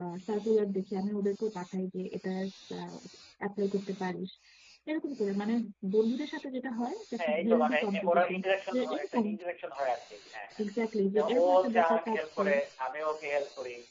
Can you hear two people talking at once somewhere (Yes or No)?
Yes